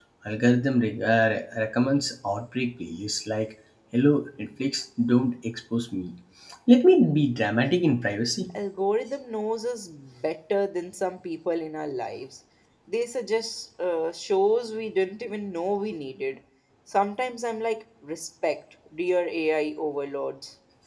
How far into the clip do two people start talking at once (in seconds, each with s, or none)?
none